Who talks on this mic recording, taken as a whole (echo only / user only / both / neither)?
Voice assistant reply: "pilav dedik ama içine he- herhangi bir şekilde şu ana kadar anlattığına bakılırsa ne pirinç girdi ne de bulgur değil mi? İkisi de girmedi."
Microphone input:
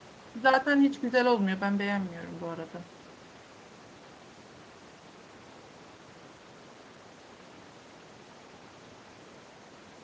user only